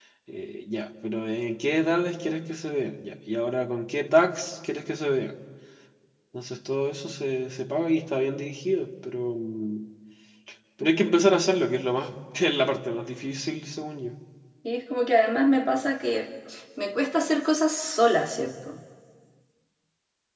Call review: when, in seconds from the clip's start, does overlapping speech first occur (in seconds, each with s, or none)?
none